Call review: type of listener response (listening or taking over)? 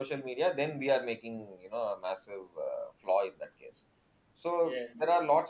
listening